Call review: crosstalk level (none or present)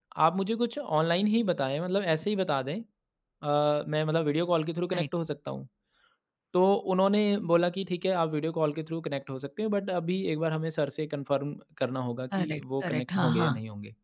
present